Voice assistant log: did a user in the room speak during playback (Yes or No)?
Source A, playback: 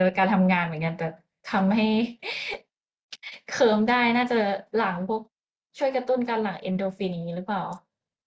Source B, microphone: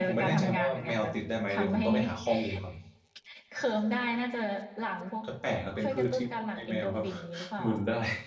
Yes